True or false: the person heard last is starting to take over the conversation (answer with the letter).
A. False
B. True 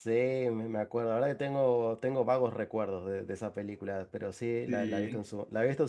A